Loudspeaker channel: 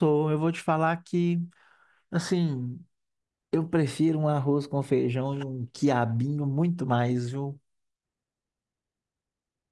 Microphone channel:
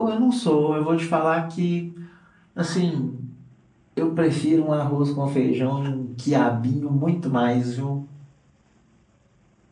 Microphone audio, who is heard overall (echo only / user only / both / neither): echo only